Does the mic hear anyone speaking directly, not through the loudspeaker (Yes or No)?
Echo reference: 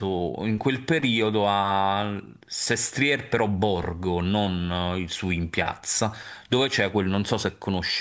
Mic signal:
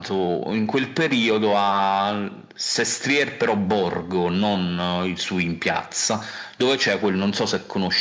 No